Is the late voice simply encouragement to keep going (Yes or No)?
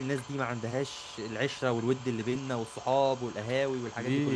No